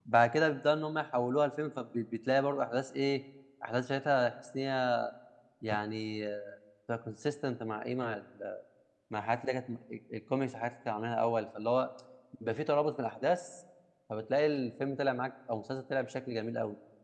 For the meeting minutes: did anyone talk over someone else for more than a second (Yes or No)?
No